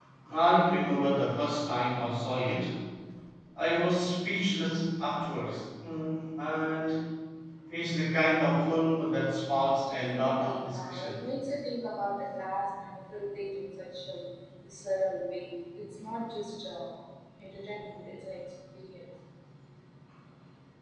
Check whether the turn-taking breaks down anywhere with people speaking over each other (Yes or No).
Yes